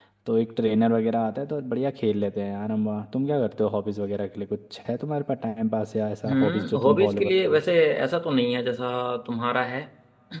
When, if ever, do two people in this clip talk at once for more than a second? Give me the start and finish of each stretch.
6.3-7.6

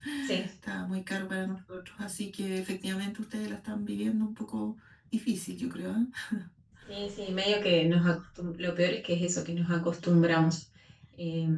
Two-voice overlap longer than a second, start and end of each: none

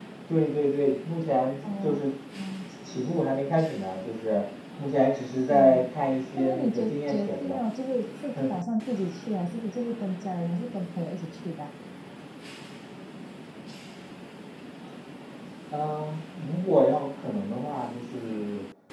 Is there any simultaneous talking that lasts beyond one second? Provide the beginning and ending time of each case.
6.4-7.6

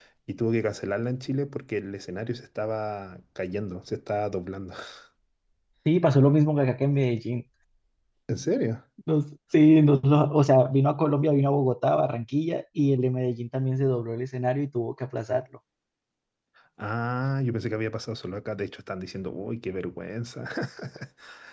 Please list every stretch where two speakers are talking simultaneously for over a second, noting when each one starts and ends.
none

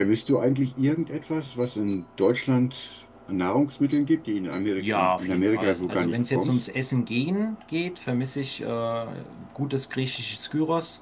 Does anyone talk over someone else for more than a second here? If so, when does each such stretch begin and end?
4.8-6.6

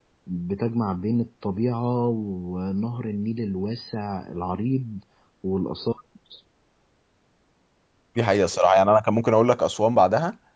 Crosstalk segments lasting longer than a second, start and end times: none

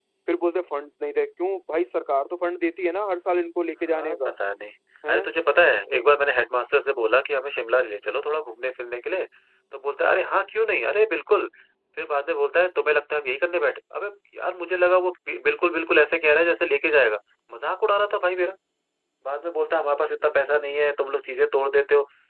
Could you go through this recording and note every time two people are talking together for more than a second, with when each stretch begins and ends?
none

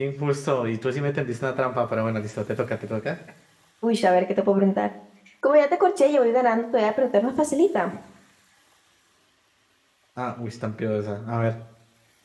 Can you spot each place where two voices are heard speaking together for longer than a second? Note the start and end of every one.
none

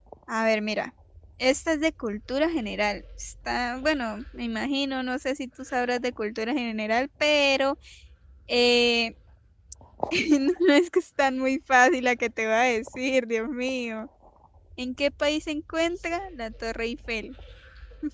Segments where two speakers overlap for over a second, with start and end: none

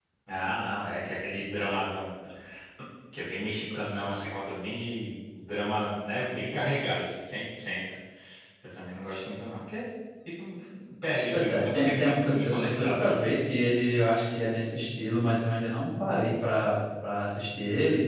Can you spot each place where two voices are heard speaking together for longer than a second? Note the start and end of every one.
11.3-13.5

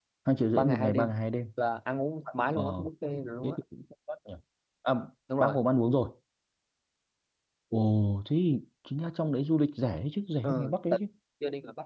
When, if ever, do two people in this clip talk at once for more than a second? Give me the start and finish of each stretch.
none

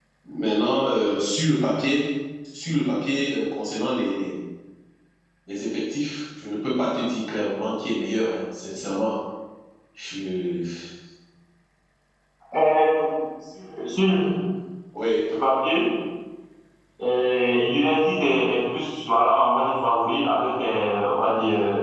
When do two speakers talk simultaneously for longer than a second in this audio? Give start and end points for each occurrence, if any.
none

